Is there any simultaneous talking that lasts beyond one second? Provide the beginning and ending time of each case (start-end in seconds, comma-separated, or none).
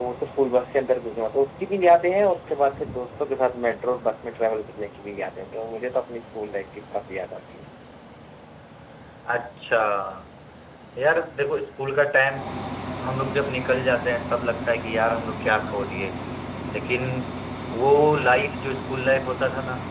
none